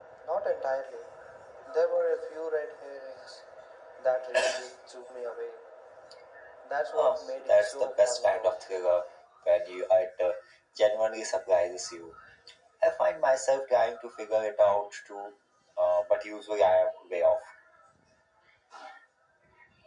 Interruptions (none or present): present